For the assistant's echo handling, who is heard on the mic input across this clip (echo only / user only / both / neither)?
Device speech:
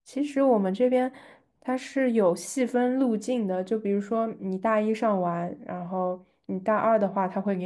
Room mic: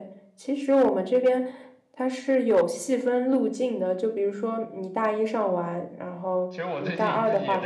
both